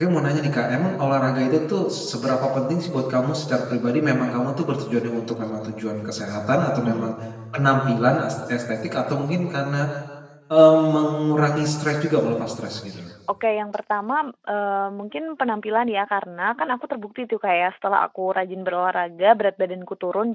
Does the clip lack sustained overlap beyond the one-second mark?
Yes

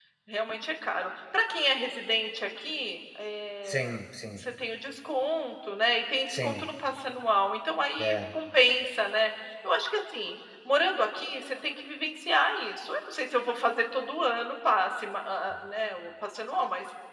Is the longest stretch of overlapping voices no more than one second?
Yes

